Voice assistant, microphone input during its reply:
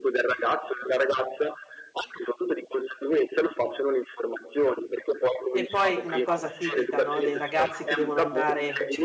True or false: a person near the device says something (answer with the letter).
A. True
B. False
A